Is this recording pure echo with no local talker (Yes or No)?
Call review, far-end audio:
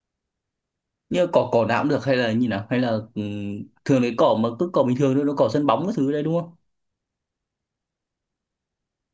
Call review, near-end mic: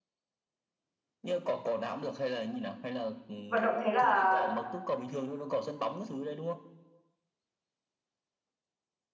No